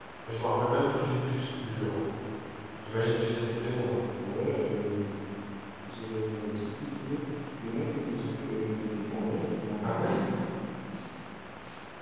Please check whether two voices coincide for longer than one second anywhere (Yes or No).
No